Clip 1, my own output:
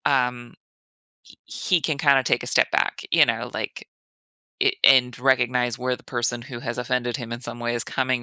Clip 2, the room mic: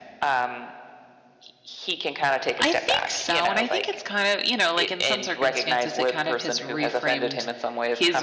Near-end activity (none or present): present